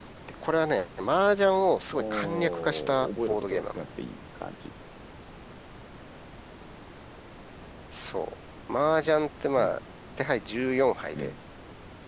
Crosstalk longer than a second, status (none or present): present